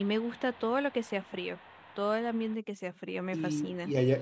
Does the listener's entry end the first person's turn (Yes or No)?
Yes